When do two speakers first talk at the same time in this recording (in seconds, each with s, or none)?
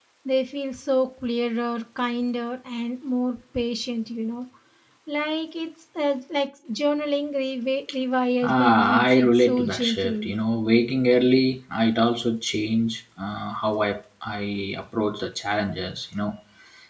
8.4 s